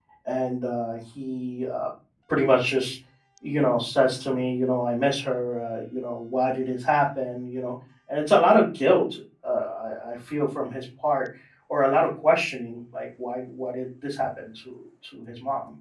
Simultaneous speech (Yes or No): No